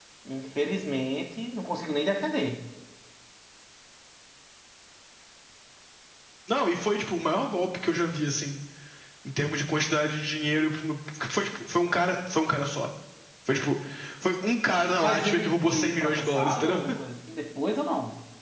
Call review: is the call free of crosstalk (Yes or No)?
No